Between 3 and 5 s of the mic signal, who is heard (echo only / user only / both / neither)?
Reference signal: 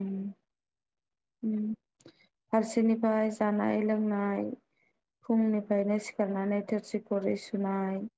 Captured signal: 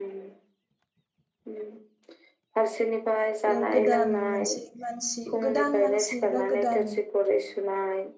both